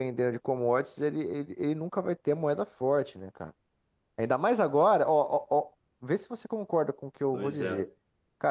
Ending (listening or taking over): listening